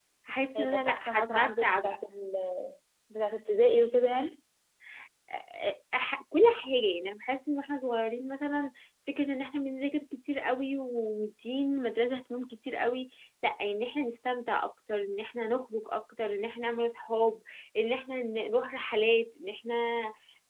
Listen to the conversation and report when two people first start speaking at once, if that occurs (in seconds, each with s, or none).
0.6 s